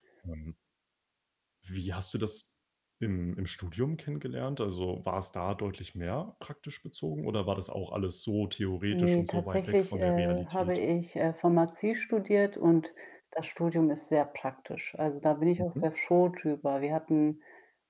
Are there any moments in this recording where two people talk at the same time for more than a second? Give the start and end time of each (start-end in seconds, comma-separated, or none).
8.9-10.8